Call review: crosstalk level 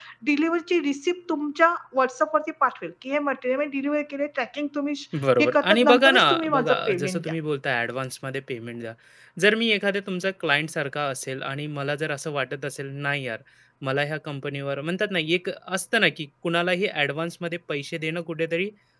present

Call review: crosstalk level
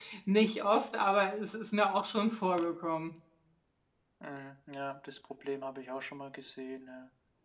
none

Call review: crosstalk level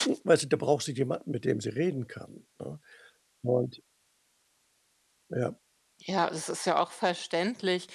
none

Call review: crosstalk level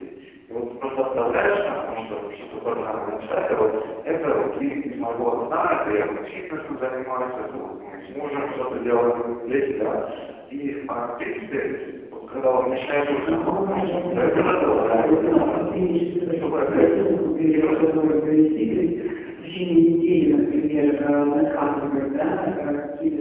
present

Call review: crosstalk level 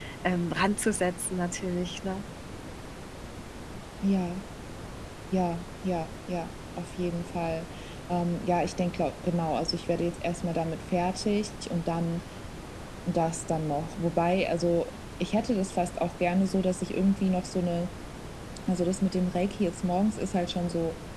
none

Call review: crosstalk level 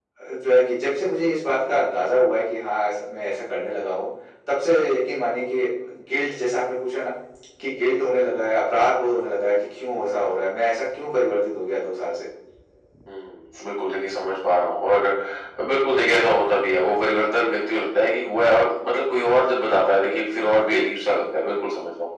none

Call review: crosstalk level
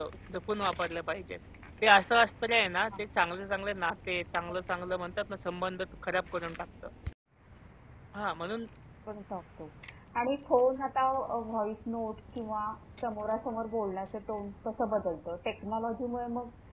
none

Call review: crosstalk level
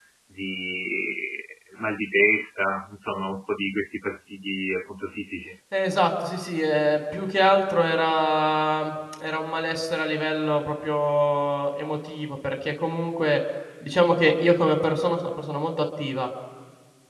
none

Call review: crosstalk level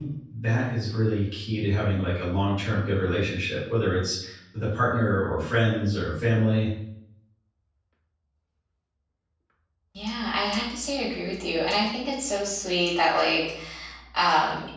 none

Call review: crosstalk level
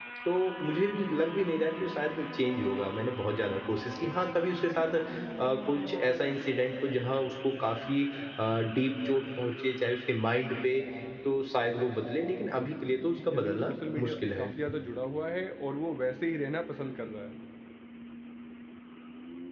present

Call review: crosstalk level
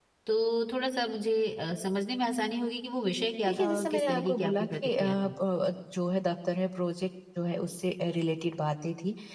present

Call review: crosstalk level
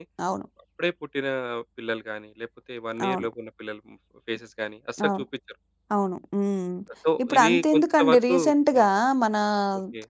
present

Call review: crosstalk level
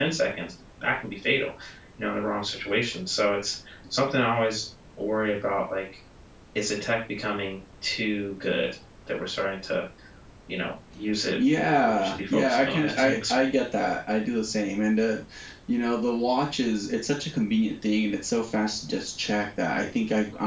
present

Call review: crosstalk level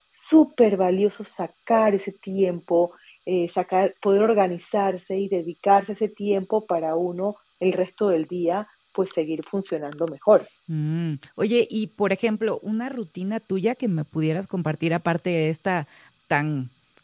none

